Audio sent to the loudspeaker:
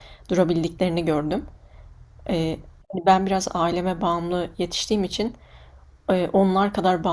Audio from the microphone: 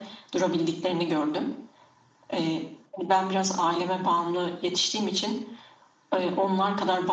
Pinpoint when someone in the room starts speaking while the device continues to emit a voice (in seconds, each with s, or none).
none